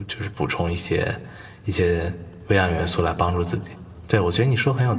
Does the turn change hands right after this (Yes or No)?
No